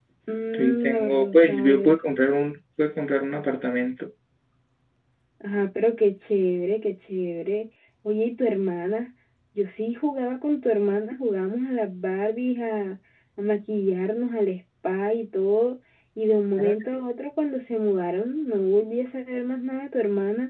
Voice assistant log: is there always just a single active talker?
No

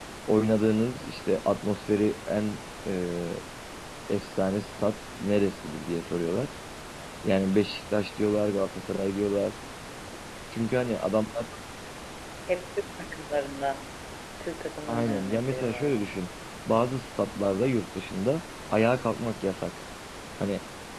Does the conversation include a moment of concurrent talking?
Yes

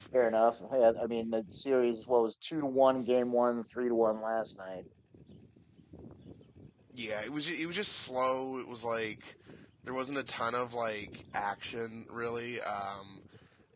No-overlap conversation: Yes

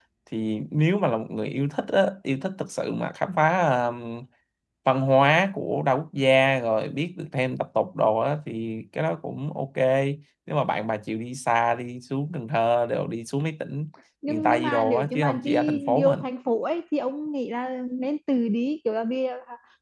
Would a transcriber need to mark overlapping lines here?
Yes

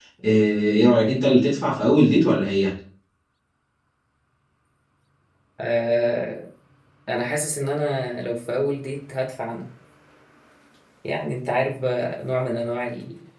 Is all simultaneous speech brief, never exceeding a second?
Yes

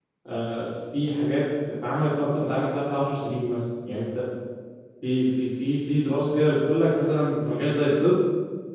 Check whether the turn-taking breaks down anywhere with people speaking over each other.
No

